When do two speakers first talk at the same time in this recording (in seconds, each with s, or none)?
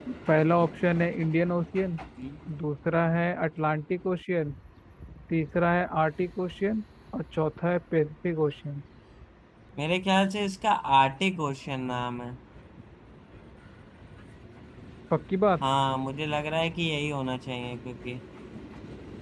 none